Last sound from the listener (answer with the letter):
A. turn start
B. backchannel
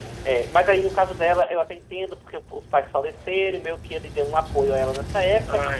B